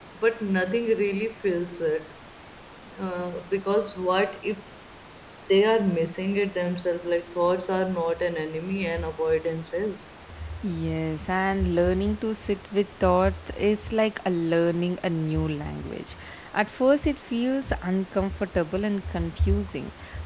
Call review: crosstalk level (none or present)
none